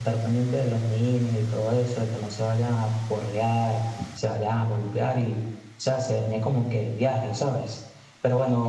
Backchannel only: Yes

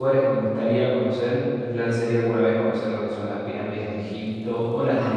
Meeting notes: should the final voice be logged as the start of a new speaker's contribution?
No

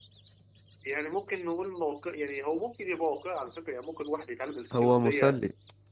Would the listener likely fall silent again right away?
No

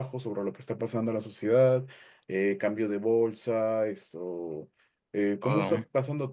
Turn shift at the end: No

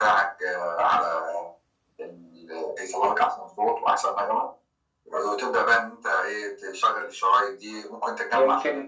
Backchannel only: No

